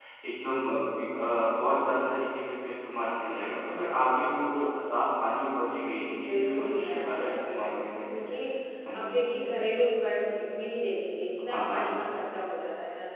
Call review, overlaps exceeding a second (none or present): present